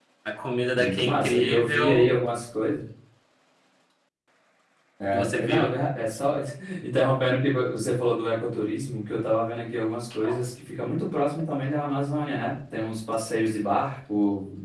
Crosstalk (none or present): present